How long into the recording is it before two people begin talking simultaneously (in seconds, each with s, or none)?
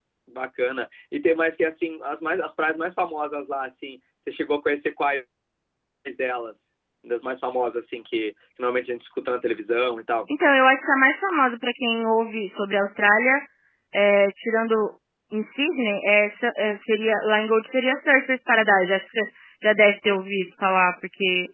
none